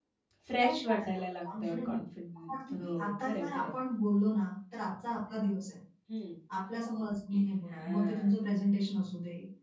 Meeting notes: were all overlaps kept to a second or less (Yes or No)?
No